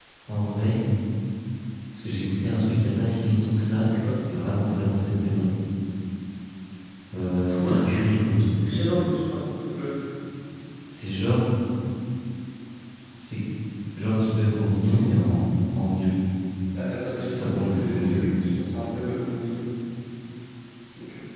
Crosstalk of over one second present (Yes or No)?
Yes